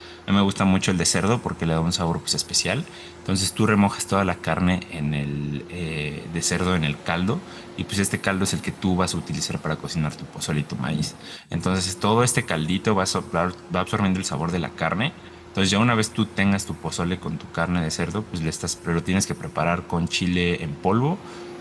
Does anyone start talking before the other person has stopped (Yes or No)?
No